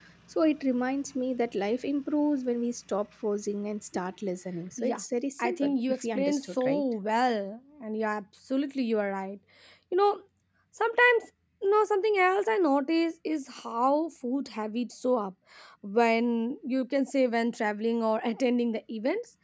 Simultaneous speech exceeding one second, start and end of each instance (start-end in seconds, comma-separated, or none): 5.4-6.8